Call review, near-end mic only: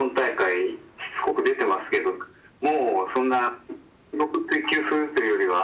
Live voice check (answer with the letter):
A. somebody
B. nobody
B